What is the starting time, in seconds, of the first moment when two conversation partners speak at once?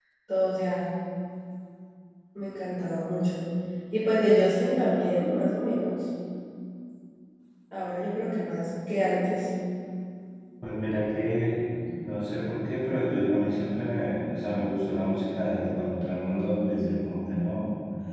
none

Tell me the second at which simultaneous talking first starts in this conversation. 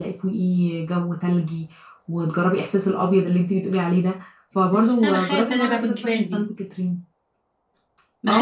4.7 s

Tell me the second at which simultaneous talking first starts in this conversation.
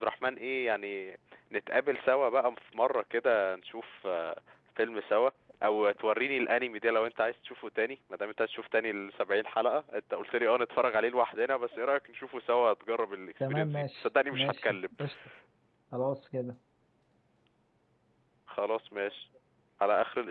13.4 s

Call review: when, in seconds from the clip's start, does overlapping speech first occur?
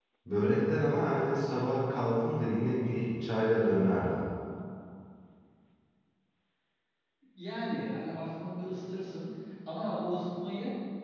none

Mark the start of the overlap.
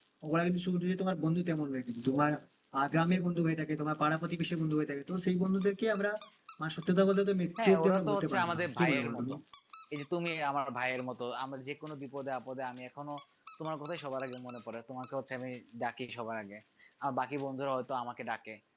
7.6 s

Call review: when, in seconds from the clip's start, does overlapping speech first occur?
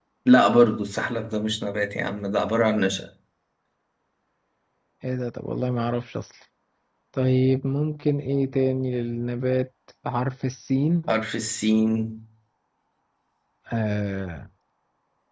none

